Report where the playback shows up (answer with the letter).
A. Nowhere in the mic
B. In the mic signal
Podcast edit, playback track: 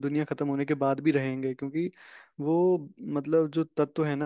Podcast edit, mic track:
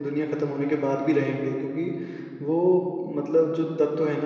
B